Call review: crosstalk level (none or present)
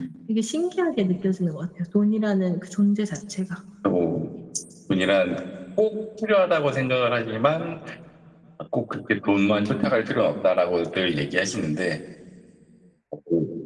none